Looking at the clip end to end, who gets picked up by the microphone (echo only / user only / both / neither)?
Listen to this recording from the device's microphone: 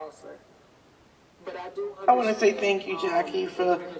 both